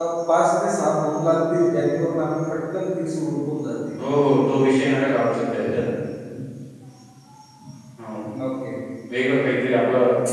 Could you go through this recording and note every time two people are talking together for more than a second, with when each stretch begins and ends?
none

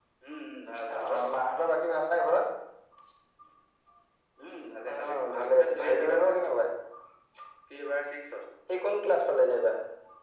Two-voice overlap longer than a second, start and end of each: 4.9-6.5

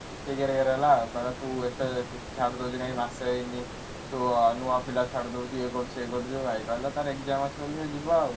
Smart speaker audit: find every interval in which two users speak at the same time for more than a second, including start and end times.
none

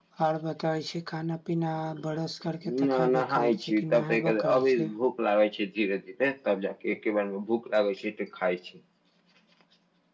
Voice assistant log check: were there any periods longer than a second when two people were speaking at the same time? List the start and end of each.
2.6-4.9

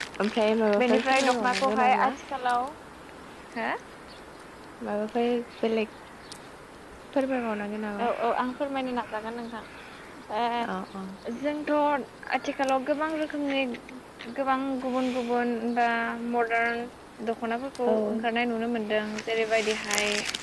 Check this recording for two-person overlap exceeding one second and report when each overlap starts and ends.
0.8-2.1

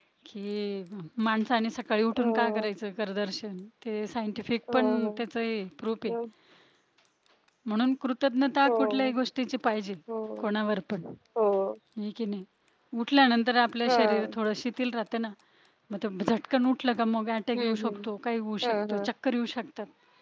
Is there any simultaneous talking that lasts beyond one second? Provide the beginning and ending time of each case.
none

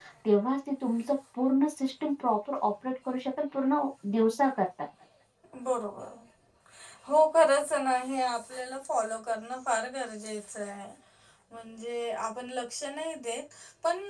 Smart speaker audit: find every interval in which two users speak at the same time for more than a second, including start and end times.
none

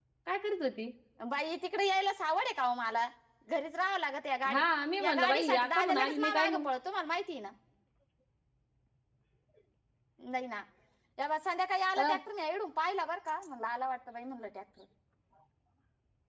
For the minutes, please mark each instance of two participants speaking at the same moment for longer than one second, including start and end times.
5.0-6.7

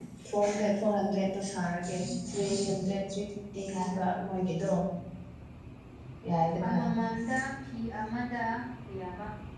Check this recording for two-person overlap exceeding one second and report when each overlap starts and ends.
none

